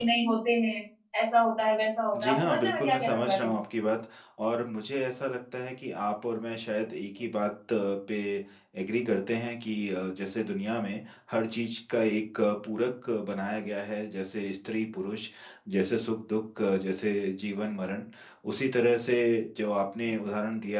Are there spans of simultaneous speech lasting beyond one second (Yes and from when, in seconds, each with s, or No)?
Yes, from 2.1 s